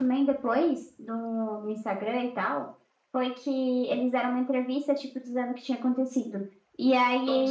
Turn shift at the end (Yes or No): No